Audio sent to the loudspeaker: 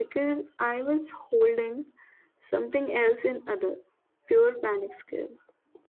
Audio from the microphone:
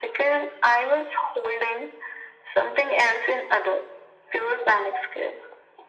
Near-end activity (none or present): none